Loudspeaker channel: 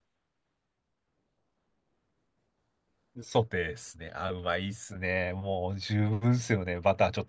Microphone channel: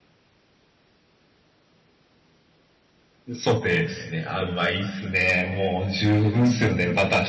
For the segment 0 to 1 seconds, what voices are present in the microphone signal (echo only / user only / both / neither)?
neither